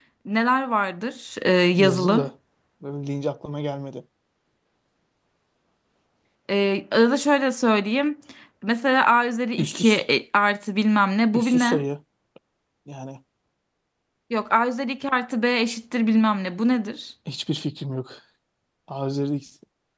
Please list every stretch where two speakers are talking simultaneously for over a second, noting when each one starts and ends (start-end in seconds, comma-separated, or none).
none